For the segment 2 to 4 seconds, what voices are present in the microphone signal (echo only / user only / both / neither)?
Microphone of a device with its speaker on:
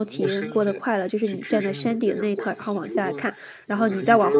both